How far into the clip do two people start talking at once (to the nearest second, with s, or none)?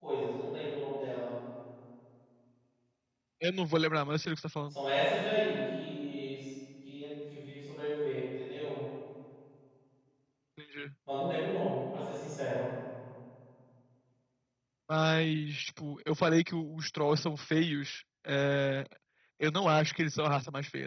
none